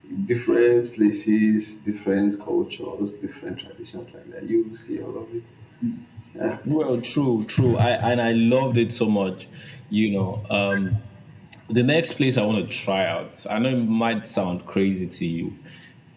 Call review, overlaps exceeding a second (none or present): none